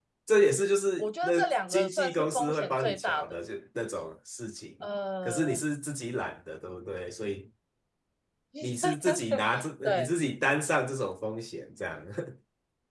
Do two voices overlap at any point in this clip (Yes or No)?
Yes